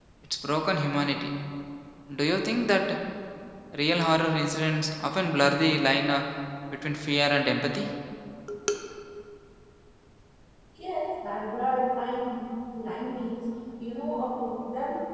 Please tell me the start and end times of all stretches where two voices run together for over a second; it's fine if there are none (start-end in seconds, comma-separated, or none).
none